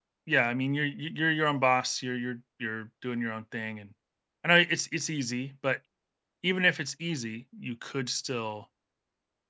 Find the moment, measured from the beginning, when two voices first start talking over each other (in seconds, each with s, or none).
none